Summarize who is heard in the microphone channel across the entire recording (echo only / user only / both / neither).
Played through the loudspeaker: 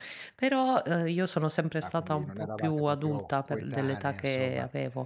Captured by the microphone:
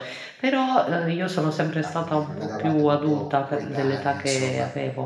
both